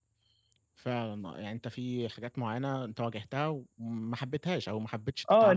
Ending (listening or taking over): taking over